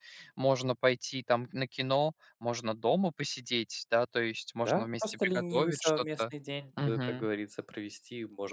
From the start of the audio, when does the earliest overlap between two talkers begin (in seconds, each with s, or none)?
4.7 s